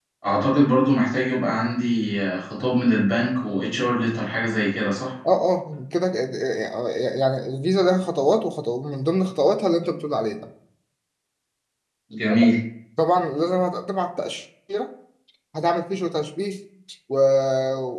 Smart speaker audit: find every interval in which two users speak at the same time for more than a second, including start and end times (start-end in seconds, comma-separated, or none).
none